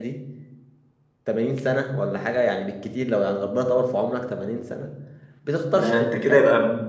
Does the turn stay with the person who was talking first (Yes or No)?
No